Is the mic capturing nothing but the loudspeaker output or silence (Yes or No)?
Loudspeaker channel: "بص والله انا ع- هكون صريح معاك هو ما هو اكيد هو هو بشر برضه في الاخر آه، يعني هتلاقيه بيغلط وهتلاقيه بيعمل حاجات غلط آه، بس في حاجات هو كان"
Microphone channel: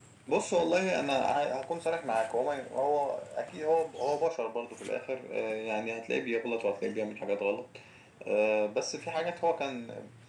Yes